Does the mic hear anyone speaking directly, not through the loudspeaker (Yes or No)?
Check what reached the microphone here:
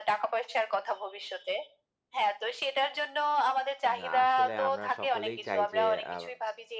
Yes